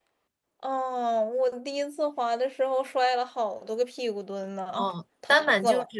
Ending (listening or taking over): taking over